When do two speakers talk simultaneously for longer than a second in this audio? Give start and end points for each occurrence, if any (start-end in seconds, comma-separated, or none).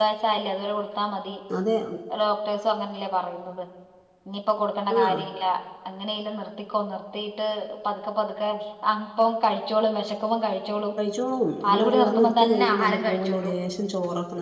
11.6-13.5